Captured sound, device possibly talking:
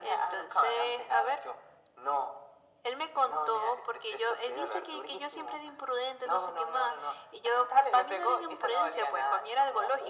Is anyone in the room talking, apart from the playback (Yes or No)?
No